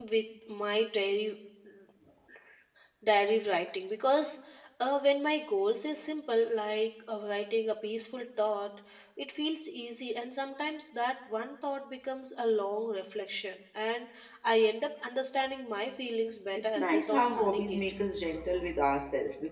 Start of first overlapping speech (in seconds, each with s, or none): 16.6 s